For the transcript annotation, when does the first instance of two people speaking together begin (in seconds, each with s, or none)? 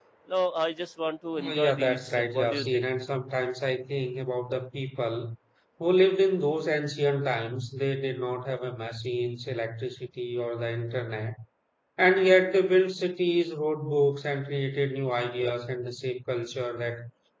1.4 s